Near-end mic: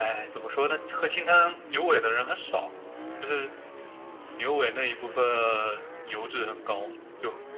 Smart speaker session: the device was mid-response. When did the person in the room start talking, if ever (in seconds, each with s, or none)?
none